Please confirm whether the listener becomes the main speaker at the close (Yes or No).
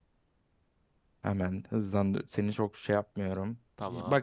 No